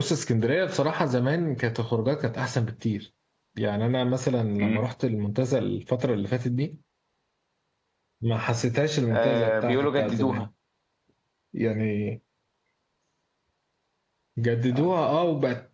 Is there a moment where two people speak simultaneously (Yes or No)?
Yes